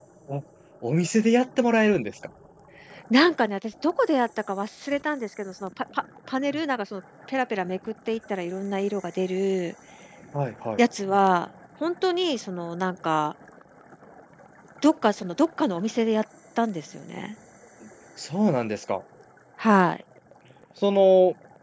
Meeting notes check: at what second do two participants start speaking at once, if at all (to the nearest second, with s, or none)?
none